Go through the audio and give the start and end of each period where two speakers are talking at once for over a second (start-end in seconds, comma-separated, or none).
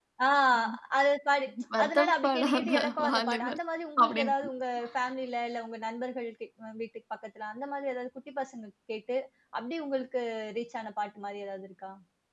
1.8-3.6